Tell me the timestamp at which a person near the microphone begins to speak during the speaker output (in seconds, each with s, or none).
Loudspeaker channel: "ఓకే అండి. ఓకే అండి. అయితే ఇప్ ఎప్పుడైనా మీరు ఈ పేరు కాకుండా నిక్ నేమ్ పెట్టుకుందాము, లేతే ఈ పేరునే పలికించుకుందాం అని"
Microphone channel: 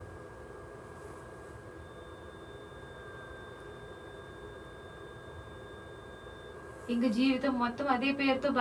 6.9 s